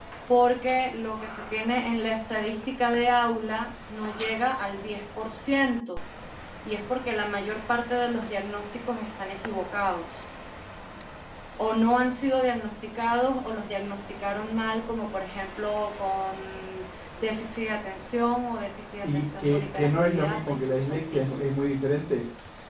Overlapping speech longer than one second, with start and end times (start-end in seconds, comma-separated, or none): 19.0-21.5